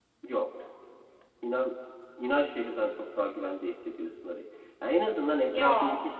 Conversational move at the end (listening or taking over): listening